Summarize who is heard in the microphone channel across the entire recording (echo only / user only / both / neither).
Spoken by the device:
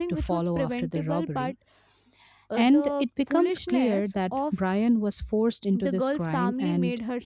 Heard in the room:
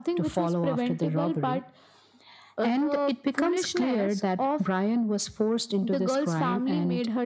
echo only